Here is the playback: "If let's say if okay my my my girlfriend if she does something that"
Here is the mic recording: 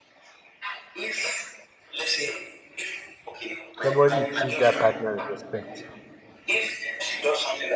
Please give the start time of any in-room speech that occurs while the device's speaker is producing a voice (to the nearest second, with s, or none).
4 s